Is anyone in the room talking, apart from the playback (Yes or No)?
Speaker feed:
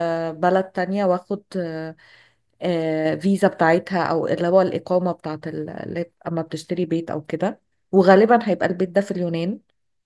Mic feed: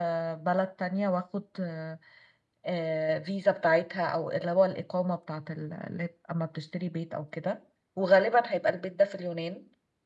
No